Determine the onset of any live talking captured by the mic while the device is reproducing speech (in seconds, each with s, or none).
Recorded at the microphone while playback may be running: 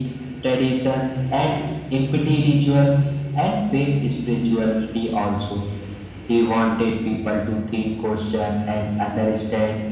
none